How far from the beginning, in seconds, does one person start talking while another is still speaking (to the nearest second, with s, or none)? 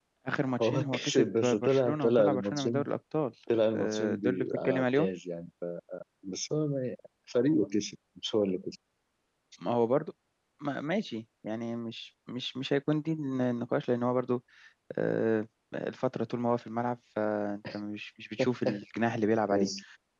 1 s